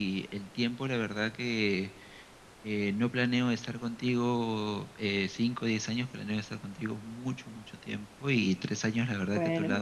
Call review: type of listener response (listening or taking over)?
listening